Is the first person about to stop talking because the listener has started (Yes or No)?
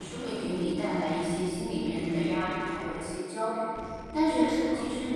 No